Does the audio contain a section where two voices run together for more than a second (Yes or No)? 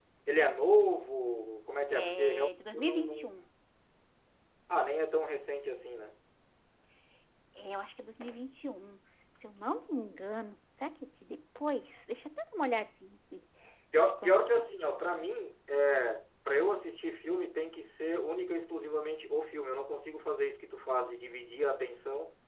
Yes